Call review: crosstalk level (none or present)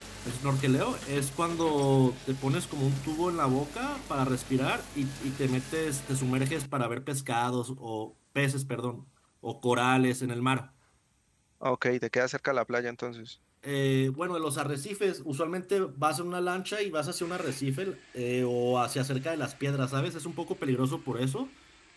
none